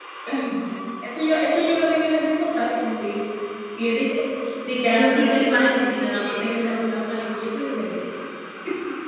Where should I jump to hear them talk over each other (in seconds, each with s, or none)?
4.8 s